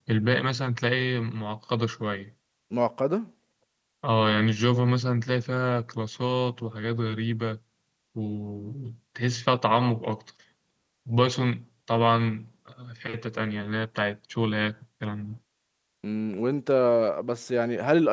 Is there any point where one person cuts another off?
No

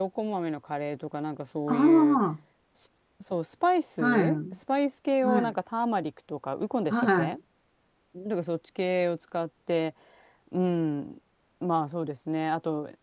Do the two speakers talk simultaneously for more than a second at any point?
No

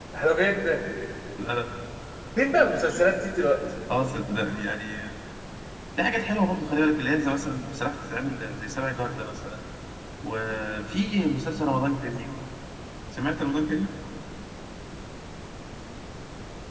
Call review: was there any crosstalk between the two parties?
No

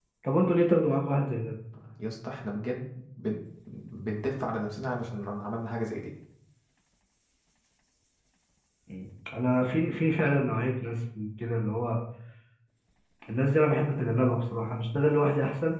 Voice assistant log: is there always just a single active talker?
Yes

